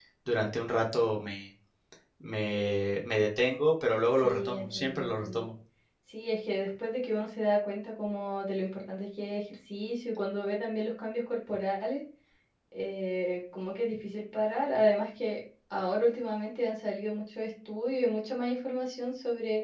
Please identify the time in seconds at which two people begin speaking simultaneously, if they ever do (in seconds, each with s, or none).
4.2 s